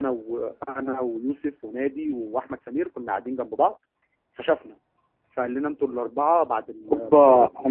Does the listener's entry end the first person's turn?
Yes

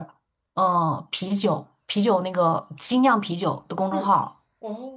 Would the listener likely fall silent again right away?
No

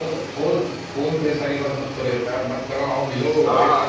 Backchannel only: No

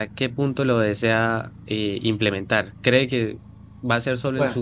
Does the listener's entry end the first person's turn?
No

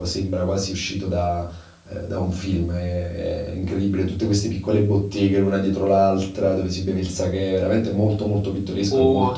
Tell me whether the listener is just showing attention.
No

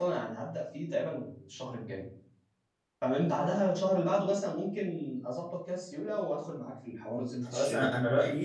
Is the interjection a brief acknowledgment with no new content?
No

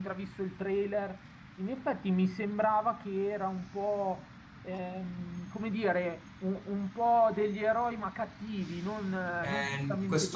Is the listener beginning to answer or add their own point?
Yes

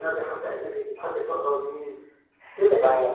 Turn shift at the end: Yes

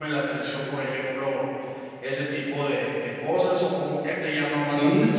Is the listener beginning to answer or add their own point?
Yes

